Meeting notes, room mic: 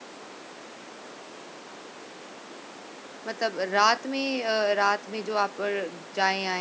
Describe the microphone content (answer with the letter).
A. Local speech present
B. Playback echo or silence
A